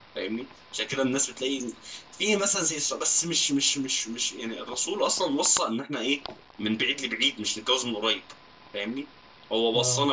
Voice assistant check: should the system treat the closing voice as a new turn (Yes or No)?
No